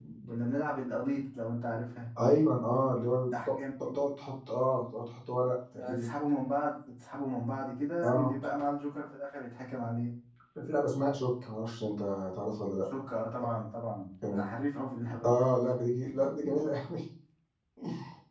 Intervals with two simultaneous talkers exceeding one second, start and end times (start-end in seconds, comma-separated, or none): none